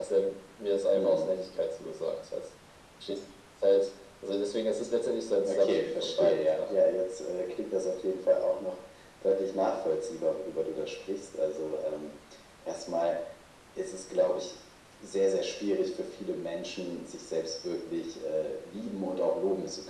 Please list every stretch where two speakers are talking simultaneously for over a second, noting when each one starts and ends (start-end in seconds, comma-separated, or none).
5.4-6.9